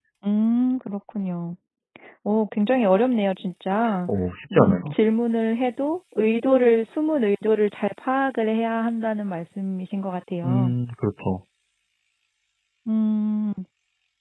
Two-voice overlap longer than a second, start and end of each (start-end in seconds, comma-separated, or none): none